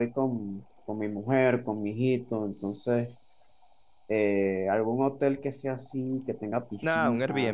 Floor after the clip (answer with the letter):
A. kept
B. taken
B